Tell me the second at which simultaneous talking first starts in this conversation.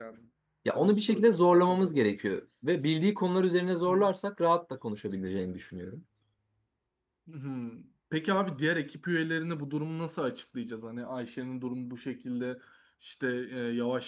1 s

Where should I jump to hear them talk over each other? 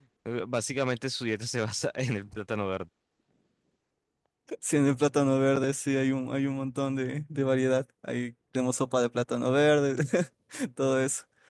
none

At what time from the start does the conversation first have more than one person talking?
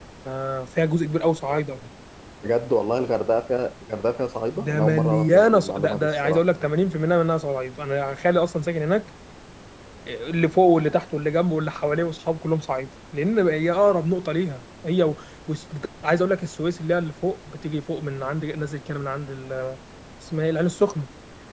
5 s

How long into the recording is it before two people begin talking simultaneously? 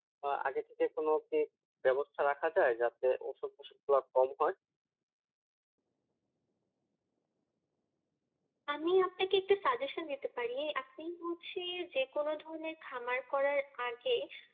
none

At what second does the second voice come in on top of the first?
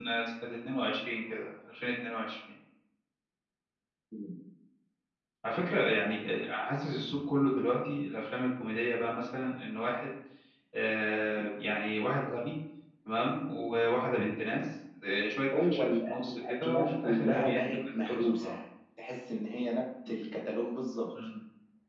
16 s

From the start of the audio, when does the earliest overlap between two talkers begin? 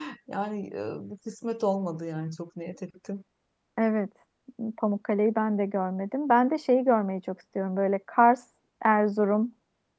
none

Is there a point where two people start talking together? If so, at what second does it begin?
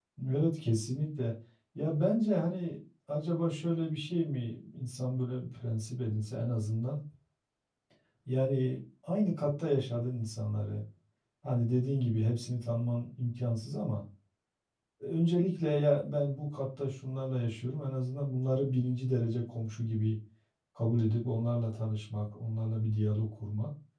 none

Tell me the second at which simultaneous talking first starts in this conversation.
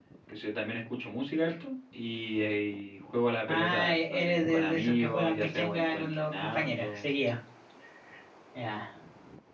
3 s

